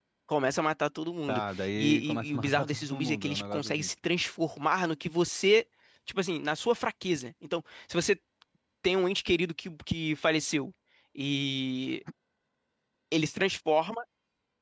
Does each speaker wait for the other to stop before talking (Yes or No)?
No